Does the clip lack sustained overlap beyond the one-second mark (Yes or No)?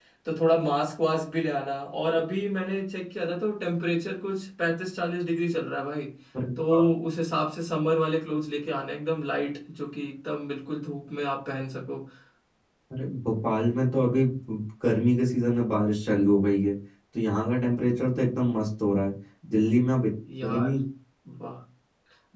Yes